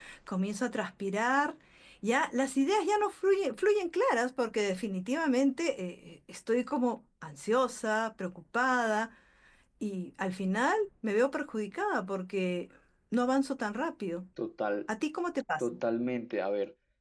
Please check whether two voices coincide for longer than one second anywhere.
No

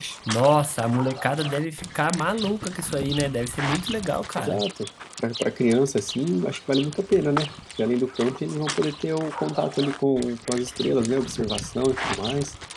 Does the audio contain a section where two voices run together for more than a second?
No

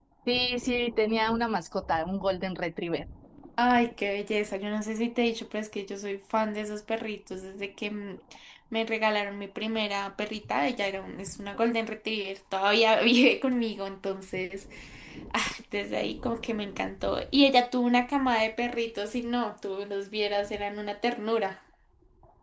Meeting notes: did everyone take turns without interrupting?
Yes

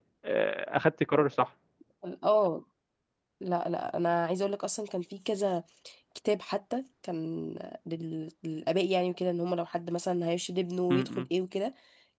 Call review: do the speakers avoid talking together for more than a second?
Yes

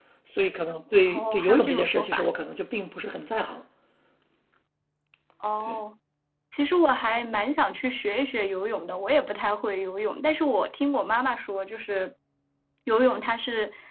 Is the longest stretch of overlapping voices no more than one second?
No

